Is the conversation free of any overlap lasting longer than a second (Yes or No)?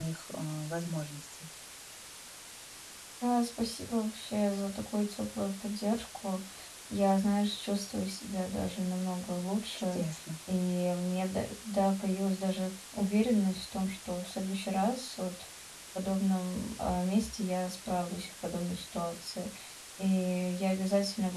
Yes